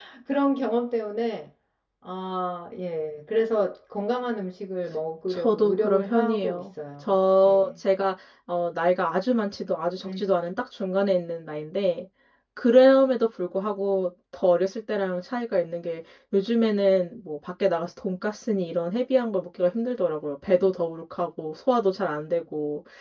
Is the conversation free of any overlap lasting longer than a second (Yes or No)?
No